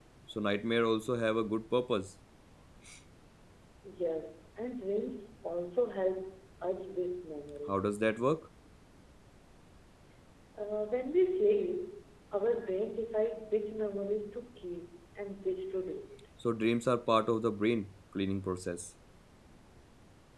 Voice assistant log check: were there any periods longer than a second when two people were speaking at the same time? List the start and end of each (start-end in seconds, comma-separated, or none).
none